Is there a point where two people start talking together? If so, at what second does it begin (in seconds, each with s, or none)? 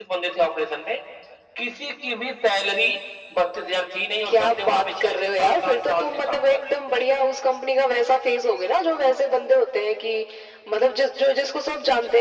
4.2 s